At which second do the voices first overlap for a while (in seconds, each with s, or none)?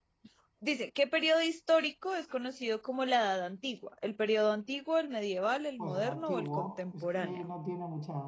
5.8 s